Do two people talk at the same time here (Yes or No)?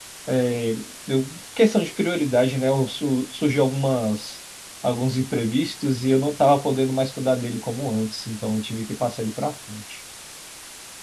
No